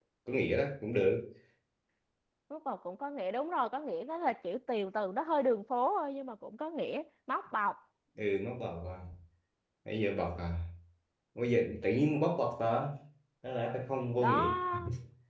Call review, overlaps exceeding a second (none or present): none